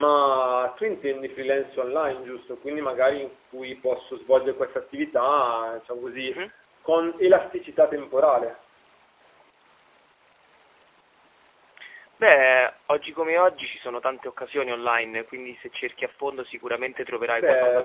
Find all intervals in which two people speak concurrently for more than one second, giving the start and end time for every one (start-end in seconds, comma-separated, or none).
none